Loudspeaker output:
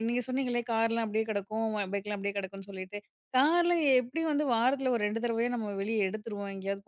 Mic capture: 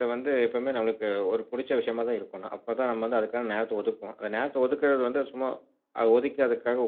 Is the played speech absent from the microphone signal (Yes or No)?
Yes